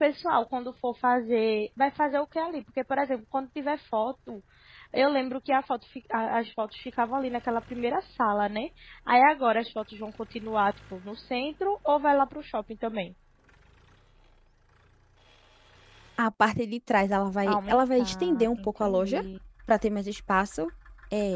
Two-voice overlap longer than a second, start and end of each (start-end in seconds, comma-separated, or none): 17.5-19.2